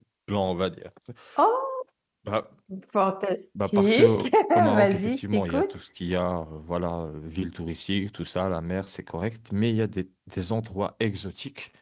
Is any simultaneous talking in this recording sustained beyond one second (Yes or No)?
Yes